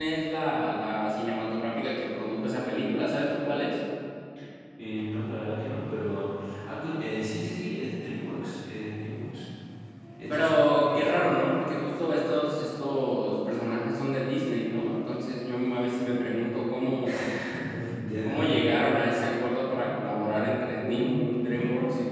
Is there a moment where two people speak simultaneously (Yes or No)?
Yes